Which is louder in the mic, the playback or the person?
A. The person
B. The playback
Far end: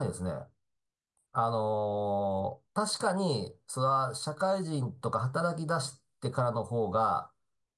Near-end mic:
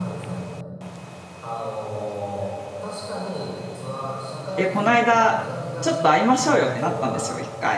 A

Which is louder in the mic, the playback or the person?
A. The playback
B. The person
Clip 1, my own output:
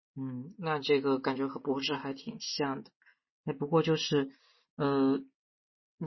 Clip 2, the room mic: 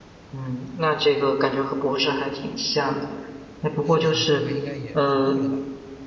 A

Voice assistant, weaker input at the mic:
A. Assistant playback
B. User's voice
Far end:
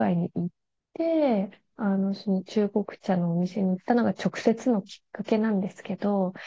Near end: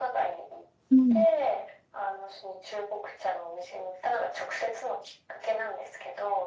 A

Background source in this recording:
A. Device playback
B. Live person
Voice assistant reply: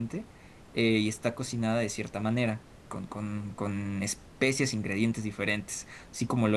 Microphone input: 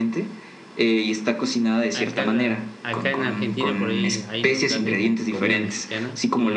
B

